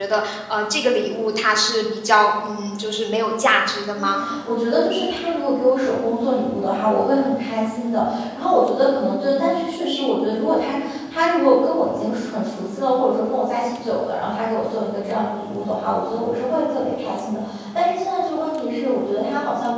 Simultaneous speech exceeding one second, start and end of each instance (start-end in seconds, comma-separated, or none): none